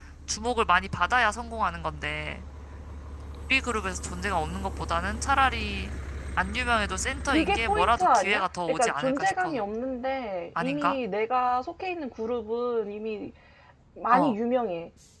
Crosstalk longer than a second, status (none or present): present